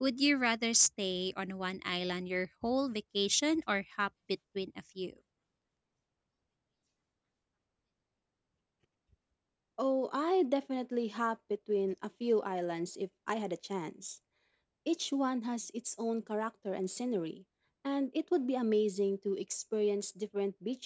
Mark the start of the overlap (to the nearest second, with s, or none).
none